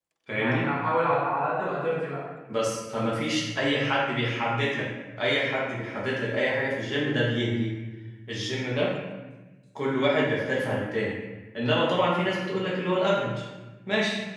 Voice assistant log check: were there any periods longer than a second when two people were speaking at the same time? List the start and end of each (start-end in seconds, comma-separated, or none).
none